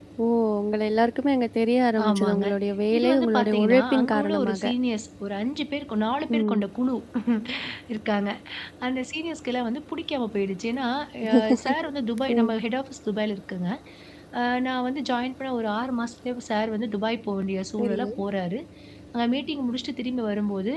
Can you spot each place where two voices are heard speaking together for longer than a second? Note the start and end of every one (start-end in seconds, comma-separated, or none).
3.0-4.7